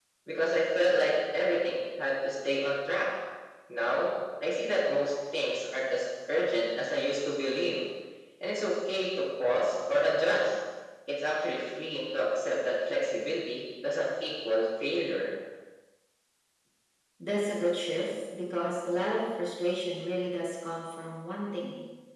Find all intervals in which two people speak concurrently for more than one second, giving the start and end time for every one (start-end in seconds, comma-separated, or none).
none